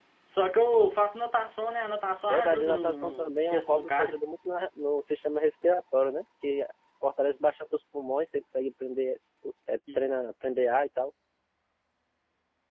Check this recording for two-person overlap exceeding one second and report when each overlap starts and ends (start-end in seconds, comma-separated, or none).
2.3-4.2